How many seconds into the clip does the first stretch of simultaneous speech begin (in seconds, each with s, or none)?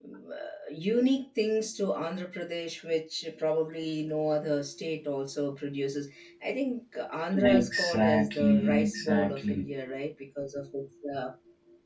7.3 s